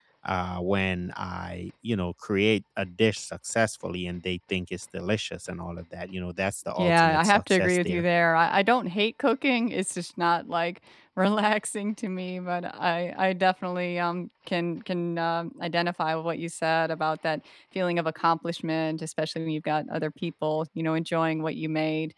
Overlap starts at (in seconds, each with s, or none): 6.8 s